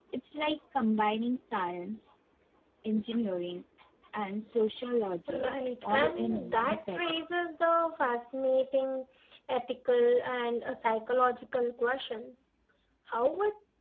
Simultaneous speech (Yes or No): Yes